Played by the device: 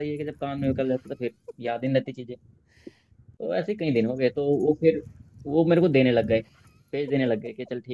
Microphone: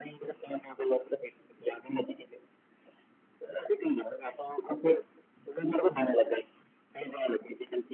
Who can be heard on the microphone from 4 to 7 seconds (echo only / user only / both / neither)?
echo only